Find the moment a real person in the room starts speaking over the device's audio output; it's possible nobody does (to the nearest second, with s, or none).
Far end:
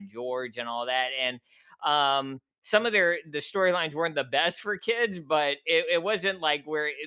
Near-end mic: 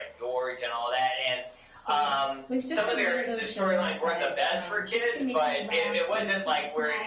2 s